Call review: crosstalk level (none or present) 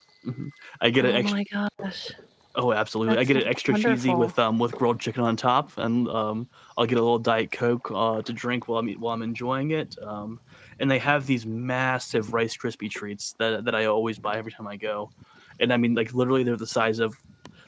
present